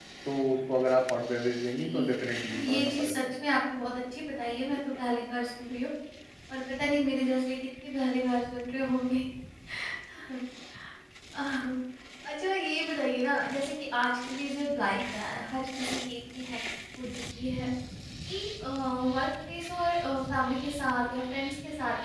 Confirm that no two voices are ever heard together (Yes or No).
No